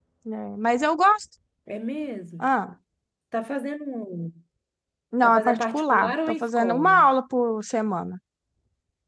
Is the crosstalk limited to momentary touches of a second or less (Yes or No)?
No